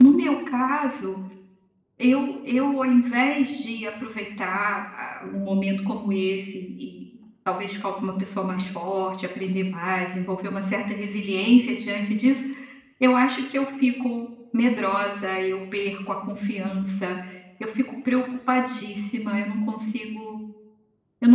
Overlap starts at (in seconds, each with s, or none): none